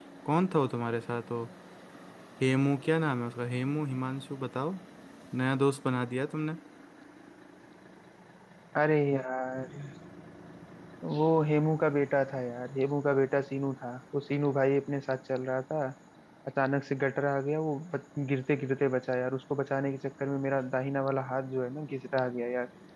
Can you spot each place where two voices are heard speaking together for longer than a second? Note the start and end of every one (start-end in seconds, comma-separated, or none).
none